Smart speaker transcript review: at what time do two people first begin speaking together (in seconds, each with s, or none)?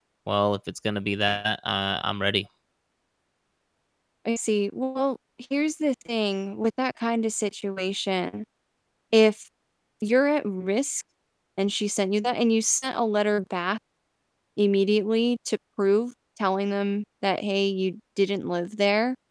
none